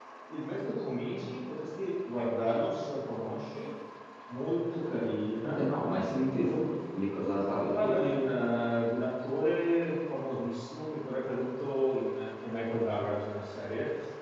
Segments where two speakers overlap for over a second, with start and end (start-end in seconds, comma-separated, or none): none